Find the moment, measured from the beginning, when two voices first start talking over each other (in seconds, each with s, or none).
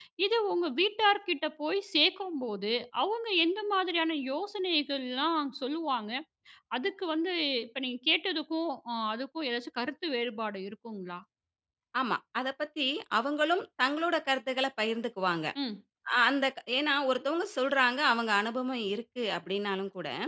none